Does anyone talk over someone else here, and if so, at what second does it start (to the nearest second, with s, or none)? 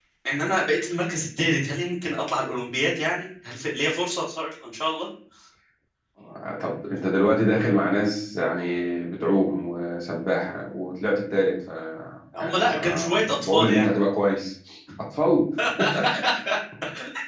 12 s